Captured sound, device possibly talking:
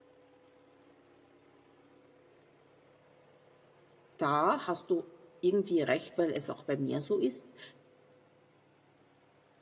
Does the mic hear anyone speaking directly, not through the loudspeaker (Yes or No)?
Yes